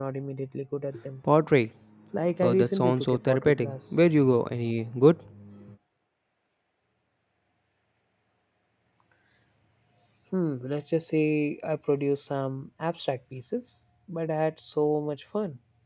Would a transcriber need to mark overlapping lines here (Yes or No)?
Yes